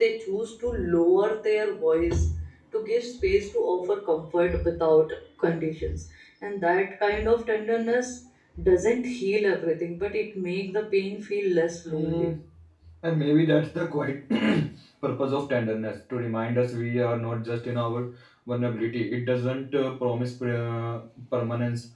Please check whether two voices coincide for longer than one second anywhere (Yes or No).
No